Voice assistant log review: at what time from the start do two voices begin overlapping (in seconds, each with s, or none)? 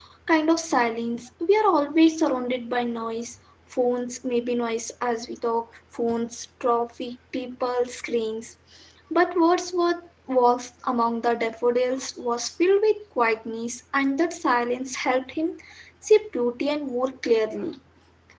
none